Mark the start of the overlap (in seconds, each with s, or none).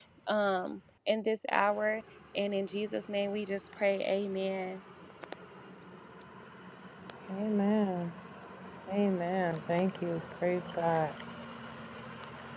none